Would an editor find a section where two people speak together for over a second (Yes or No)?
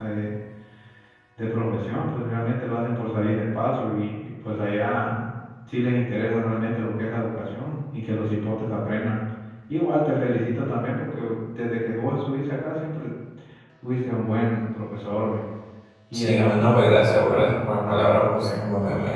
Yes